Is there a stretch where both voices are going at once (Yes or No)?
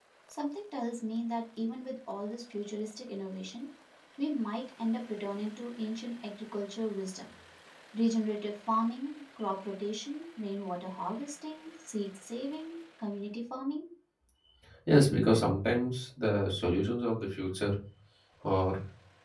No